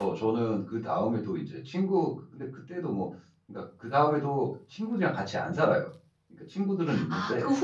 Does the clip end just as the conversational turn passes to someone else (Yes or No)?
Yes